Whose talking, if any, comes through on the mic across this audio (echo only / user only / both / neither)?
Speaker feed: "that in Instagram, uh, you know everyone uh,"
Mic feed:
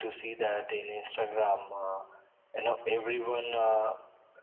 echo only